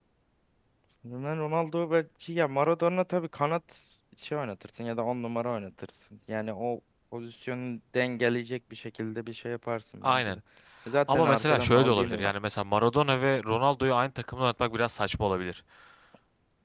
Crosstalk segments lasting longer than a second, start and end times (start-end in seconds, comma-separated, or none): 11.1-12.3